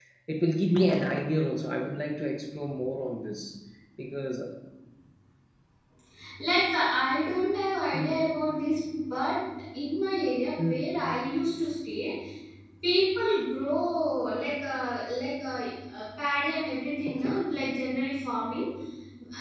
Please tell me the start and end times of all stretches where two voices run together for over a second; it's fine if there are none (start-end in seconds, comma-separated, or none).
none